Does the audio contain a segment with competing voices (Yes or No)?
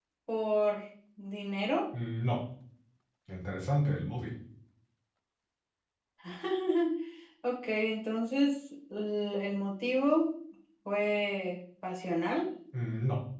No